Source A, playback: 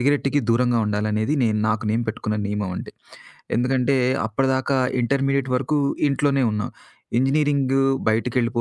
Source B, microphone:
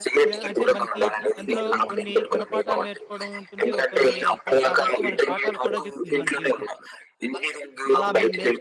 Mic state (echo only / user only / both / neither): both